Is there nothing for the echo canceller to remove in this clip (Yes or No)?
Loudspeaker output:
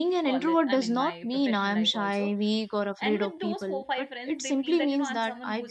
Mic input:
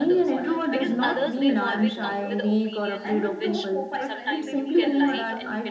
No